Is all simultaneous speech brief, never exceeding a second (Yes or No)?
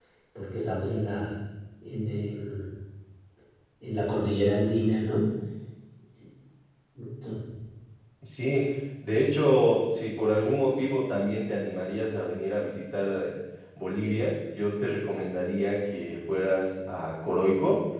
Yes